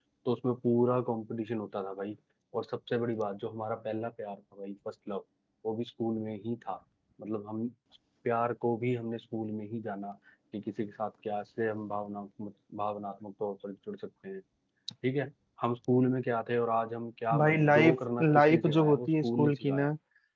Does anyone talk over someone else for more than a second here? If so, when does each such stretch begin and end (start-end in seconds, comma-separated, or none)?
17.4-19.9